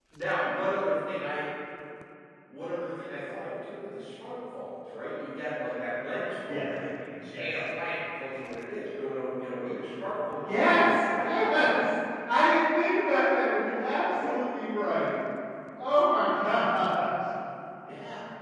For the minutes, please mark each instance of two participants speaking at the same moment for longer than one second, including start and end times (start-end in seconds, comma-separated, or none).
10.4-11.7